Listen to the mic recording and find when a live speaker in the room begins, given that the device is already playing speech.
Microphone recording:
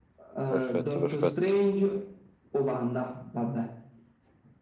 0.5 s

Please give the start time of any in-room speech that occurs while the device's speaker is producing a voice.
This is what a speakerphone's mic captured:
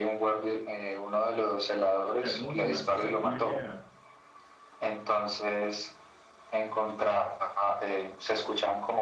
2.1 s

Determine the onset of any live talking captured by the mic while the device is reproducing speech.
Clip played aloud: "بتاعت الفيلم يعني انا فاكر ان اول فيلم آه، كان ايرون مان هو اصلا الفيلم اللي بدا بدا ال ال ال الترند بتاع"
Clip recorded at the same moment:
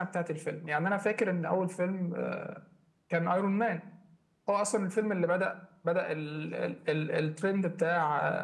none

